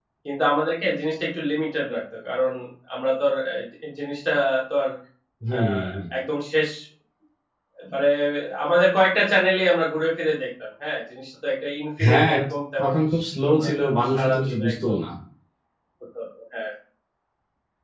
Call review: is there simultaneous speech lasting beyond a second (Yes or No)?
Yes